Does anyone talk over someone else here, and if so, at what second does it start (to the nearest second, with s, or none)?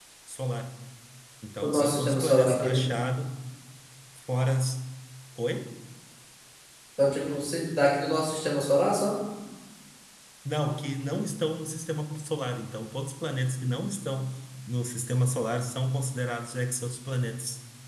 2 s